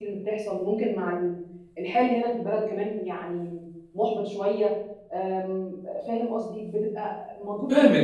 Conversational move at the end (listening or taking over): taking over